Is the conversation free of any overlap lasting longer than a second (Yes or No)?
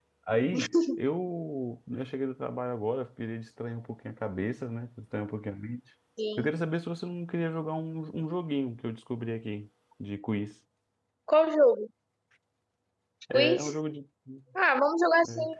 Yes